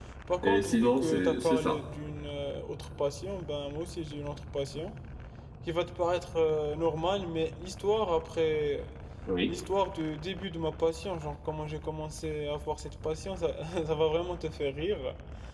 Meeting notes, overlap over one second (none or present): present